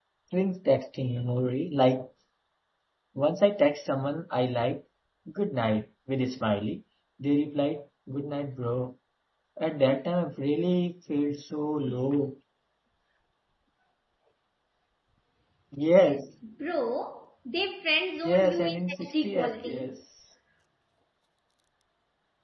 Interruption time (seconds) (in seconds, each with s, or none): 18.2 s